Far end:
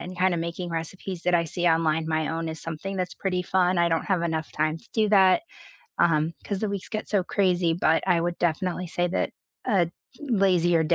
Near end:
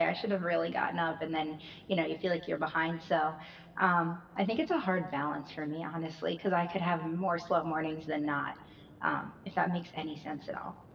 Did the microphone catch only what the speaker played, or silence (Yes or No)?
No